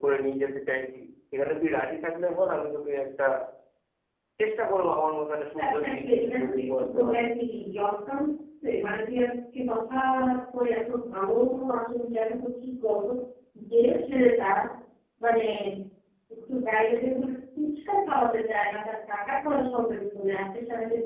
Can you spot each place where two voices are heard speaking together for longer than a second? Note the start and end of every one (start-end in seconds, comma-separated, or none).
5.6-7.3